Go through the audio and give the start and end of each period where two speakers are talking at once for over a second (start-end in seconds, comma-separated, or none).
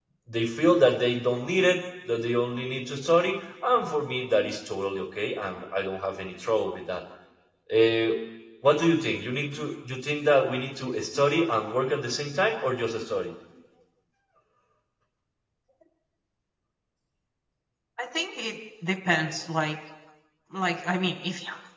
none